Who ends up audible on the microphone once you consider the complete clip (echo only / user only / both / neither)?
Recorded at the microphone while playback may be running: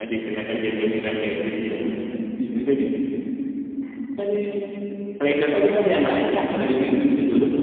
user only